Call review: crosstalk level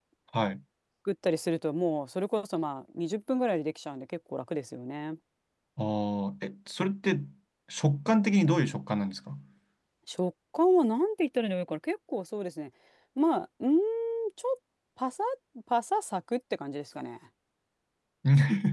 none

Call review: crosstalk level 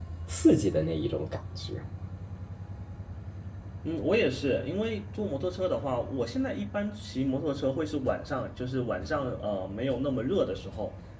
none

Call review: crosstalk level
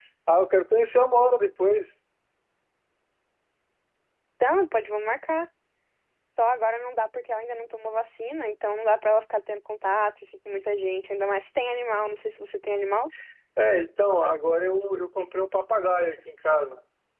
none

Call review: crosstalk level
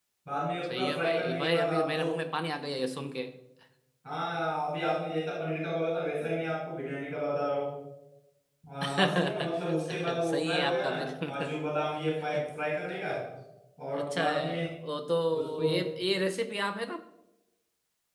present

